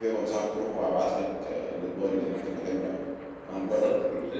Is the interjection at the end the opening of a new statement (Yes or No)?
Yes